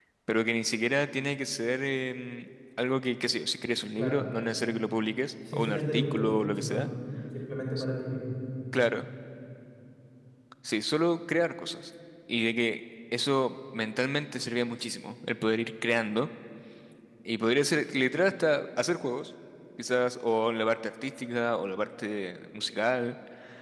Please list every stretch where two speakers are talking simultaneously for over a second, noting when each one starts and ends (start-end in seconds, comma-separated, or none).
5.5-6.9